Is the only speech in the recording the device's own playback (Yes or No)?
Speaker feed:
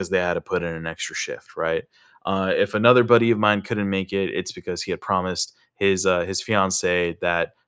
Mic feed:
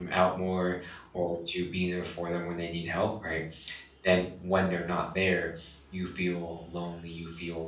No